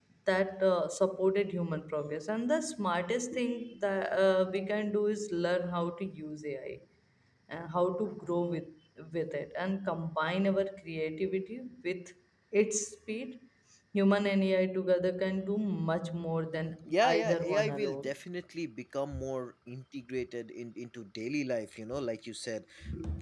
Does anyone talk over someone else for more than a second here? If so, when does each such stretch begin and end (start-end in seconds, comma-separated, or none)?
16.9-18.1